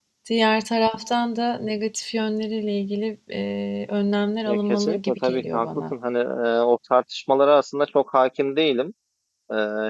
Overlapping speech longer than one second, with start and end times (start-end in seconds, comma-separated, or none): 4.5-5.9